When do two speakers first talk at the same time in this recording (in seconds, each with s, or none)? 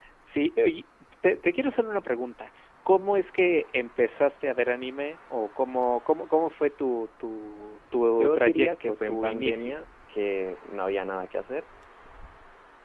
8.2 s